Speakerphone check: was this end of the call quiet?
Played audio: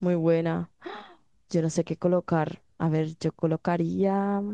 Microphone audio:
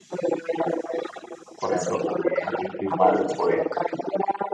No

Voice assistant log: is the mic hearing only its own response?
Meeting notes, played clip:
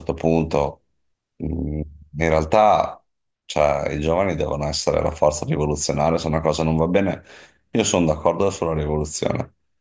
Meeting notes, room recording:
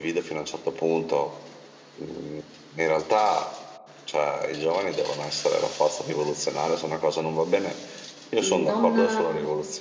No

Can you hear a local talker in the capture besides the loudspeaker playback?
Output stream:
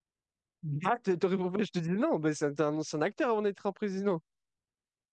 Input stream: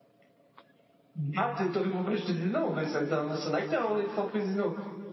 No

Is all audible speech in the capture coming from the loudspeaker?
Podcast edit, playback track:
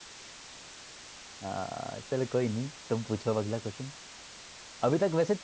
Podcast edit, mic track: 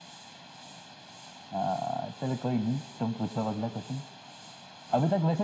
Yes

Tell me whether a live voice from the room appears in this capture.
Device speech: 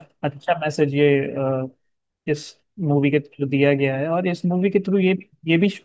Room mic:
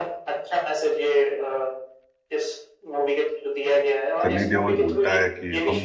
Yes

